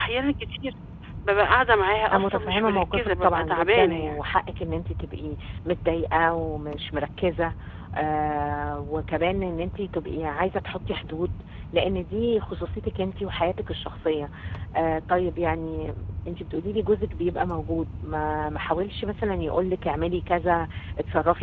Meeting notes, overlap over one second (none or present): present